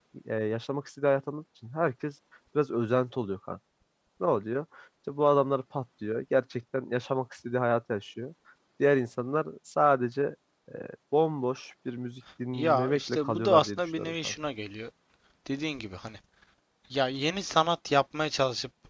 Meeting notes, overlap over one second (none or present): present